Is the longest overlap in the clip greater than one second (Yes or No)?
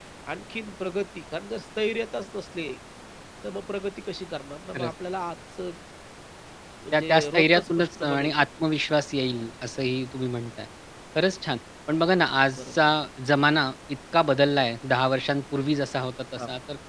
Yes